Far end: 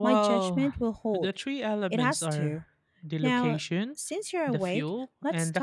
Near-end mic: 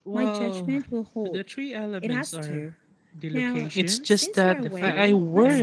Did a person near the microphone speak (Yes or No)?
Yes